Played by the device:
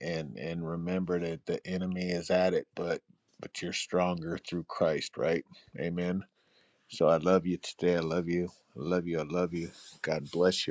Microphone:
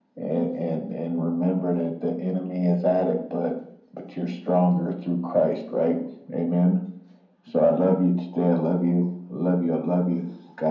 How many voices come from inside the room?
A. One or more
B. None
B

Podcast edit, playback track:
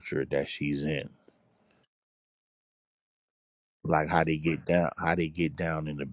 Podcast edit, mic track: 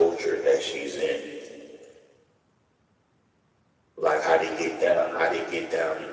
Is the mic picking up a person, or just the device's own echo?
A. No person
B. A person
A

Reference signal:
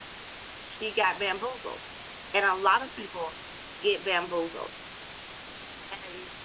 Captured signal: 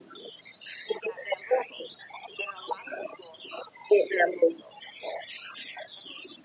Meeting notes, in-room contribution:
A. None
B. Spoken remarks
A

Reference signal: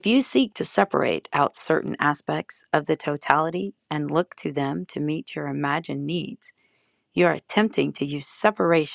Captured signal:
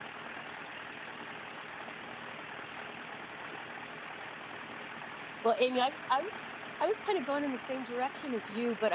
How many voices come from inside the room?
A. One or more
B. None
A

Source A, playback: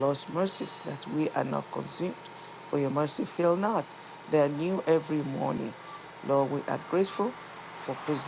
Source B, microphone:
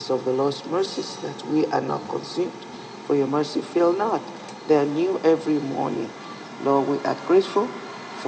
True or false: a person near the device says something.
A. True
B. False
B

